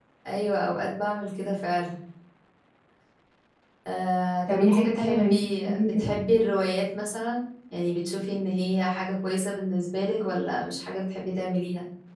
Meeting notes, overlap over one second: present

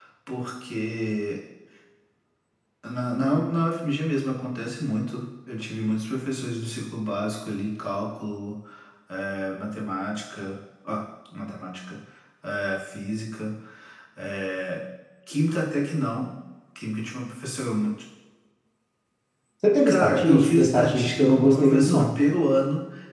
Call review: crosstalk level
present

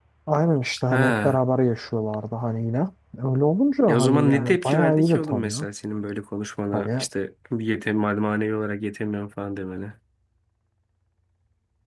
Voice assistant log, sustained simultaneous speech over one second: present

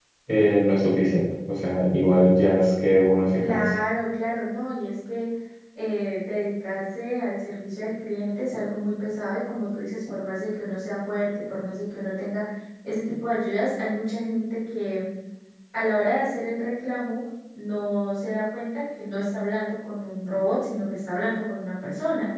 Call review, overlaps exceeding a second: none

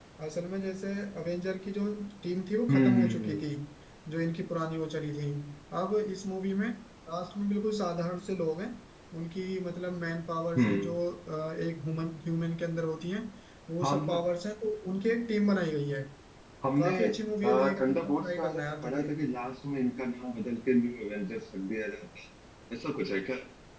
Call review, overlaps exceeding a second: present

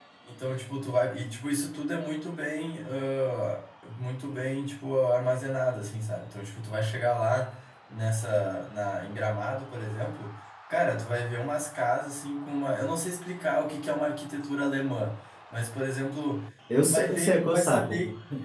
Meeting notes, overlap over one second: present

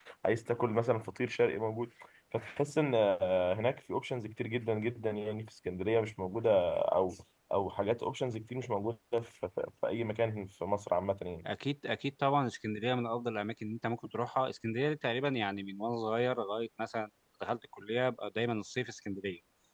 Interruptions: none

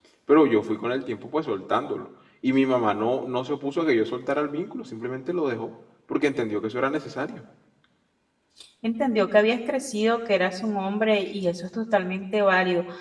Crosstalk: none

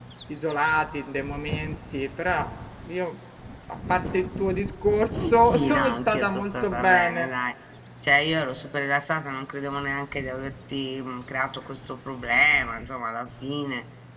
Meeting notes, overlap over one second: present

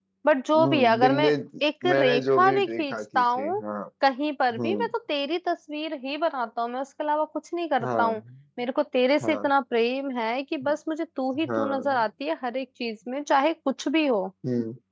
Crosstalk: present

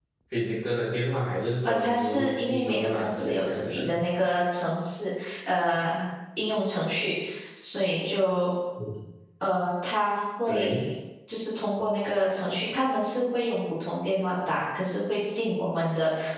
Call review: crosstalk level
present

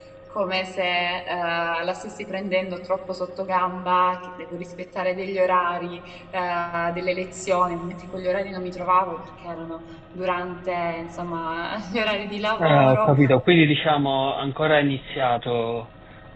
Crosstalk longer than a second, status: none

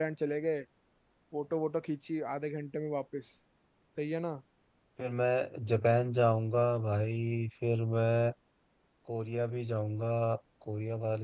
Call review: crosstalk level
none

